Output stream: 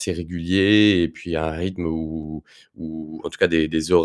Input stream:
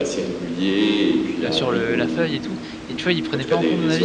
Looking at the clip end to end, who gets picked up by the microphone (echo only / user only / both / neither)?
both